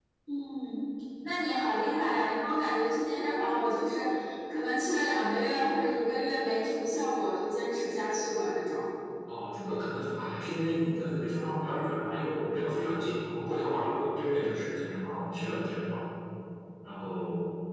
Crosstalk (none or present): none